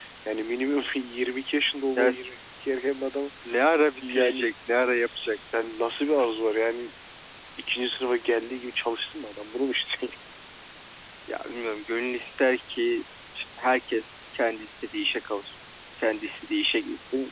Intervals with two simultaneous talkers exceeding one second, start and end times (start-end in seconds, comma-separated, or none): none